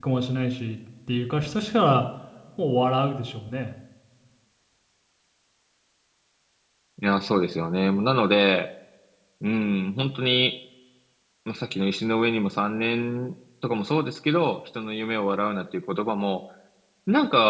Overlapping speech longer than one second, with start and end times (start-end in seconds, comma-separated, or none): none